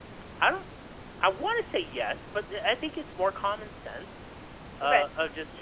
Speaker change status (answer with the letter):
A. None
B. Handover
A